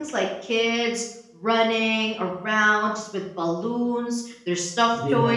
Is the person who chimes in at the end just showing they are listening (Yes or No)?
Yes